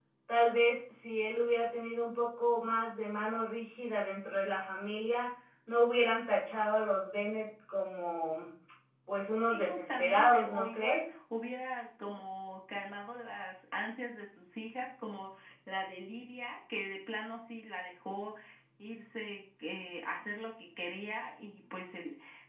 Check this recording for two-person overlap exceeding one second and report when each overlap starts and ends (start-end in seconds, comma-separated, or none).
9.5-11.1